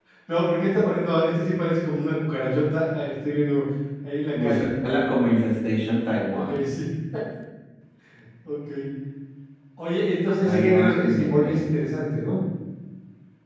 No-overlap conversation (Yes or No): No